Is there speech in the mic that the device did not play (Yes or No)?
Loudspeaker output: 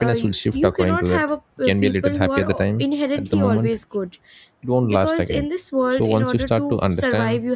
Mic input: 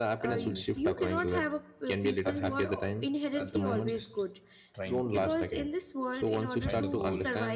Yes